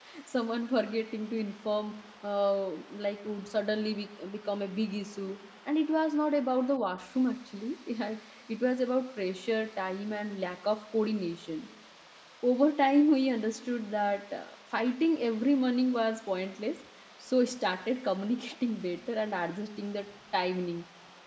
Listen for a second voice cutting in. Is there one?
No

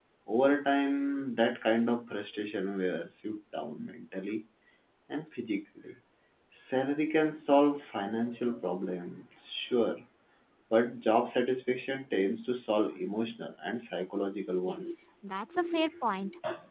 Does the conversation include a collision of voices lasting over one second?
No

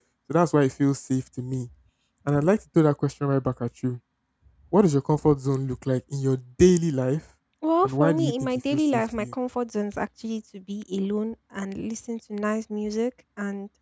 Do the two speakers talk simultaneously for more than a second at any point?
Yes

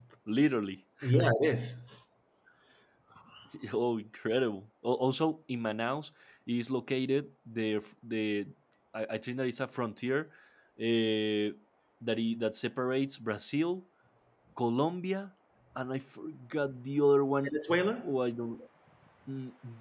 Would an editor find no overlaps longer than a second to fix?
Yes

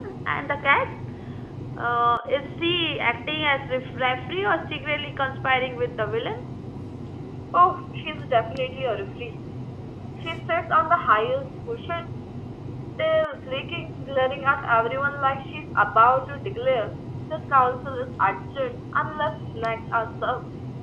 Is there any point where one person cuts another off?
No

